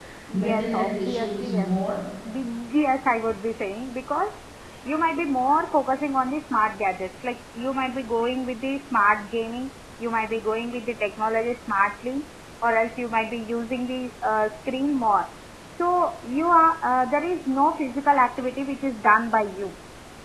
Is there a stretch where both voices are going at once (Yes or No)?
Yes